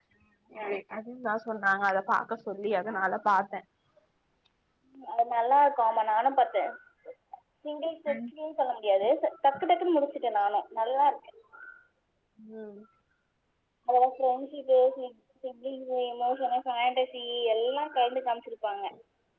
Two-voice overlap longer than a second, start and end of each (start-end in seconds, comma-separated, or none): none